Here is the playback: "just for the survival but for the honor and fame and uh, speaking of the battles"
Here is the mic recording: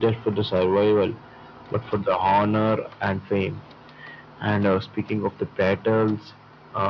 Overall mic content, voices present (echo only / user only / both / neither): echo only